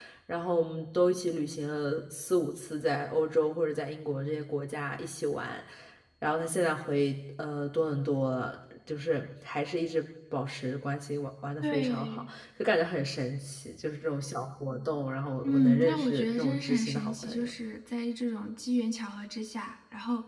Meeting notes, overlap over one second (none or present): present